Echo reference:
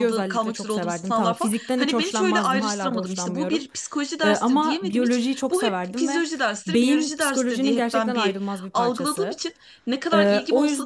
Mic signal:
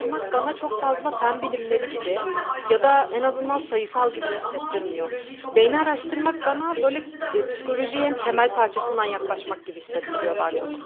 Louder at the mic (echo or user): user